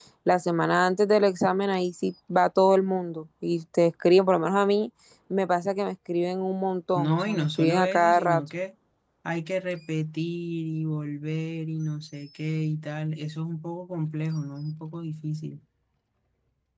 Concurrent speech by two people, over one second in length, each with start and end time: 7.0-8.4

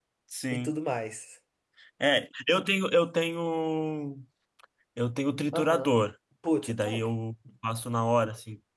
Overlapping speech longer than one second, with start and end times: none

